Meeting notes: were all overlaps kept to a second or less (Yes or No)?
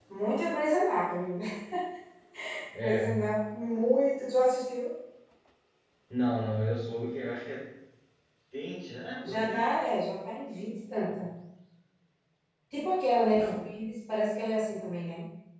Yes